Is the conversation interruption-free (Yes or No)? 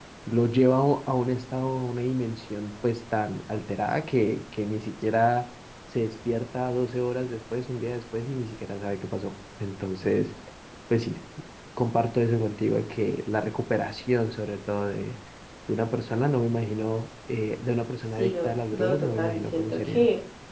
No